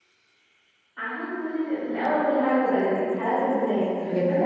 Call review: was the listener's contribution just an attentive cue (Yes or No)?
Yes